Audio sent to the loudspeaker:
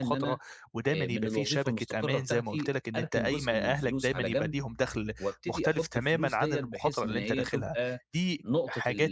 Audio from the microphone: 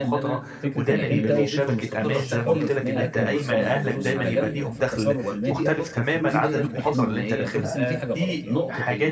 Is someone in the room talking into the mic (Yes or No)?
Yes